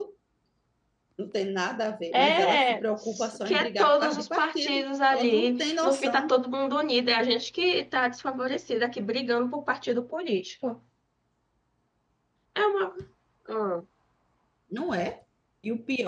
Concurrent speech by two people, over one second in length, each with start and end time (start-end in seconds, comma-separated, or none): 2.1-6.4